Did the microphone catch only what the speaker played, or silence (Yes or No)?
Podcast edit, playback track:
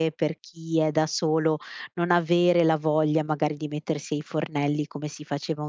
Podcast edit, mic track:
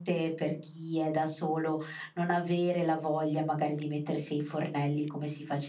Yes